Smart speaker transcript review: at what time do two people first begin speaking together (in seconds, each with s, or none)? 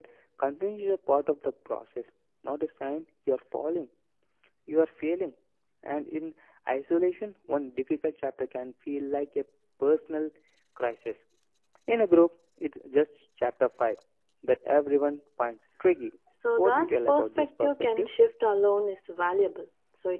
16.6 s